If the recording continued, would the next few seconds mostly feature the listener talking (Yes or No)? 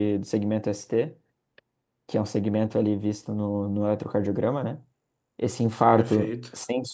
No